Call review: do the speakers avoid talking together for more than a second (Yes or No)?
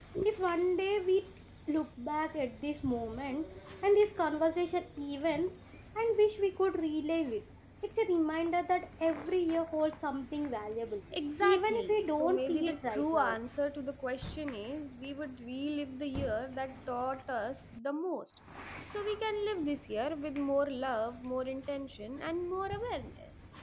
No